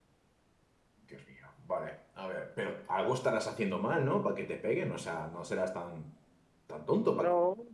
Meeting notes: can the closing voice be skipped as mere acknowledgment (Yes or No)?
No